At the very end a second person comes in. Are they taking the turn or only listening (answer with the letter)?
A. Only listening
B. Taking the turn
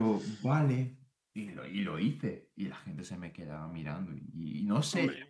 A